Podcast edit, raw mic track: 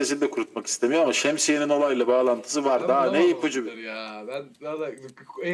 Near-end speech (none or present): present